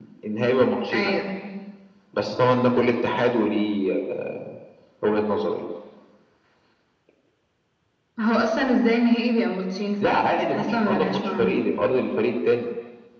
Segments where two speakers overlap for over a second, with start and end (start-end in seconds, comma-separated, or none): 10.0-11.5